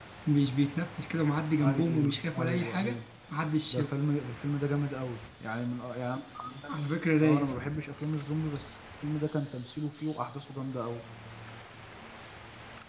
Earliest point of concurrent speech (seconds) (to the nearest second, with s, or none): 2 s